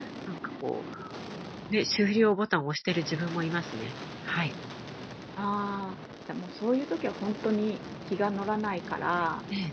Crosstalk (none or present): none